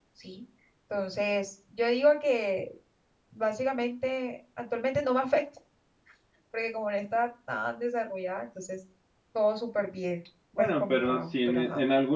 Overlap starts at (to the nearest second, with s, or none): 11 s